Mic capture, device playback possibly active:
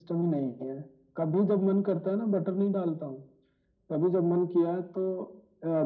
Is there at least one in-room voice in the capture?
No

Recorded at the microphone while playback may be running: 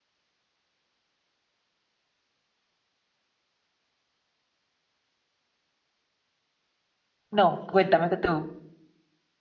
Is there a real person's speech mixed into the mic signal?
Yes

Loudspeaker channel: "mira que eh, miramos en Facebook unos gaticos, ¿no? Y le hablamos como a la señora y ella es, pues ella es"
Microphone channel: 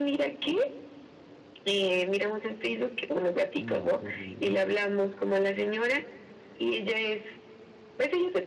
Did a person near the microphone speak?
Yes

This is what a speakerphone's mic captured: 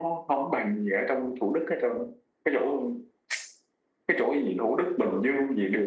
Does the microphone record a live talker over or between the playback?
No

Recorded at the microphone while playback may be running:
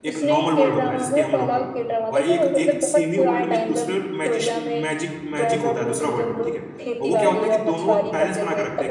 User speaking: Yes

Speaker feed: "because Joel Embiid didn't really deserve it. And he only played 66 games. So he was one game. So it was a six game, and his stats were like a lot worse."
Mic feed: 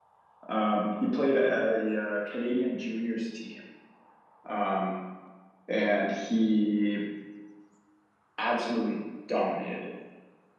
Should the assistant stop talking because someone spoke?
Yes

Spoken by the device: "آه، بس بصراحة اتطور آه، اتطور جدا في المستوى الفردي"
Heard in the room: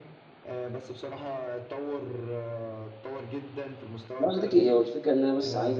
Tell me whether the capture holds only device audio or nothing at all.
No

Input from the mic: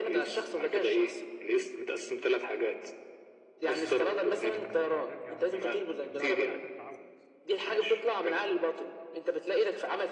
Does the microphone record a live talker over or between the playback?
Yes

